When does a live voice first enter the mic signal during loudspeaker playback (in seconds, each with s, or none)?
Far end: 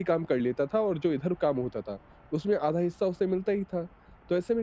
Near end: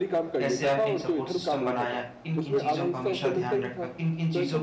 0.4 s